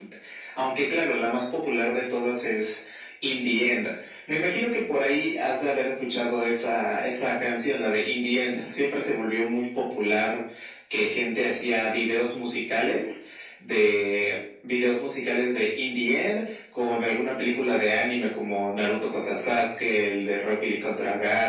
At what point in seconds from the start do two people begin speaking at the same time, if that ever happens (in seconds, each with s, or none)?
none